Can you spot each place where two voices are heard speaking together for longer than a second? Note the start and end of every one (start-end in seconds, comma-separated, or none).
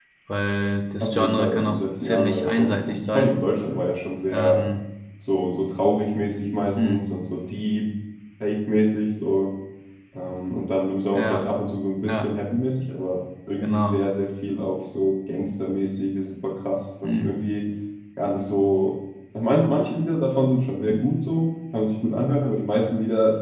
1.0-3.4